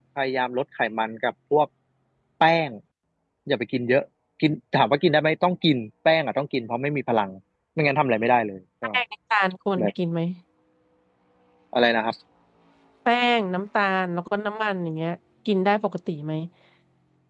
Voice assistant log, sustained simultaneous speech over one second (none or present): none